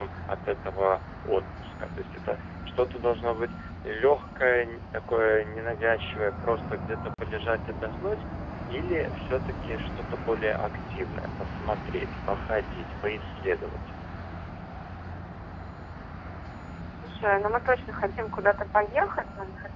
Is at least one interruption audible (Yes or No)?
No